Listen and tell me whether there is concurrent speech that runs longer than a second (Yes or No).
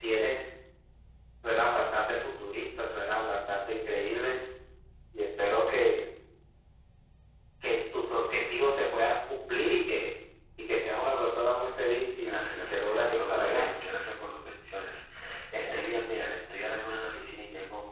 Yes